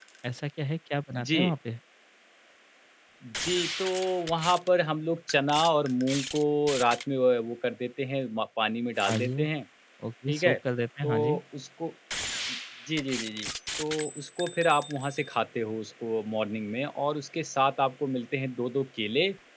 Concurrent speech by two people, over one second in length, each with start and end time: none

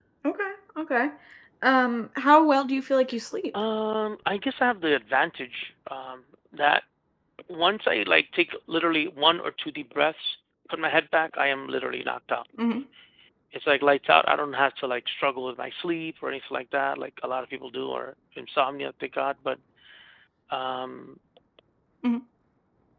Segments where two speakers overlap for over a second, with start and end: none

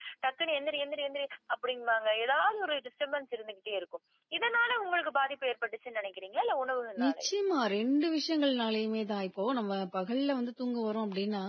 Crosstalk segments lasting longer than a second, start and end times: none

